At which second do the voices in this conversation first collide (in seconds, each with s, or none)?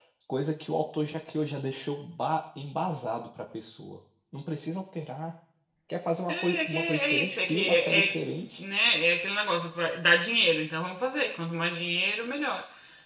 6.3 s